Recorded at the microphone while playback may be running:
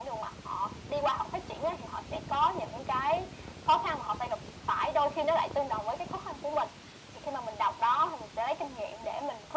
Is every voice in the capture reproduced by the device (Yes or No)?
Yes